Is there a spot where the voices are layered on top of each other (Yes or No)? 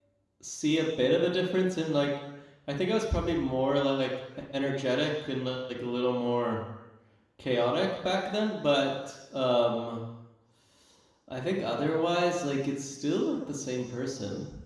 No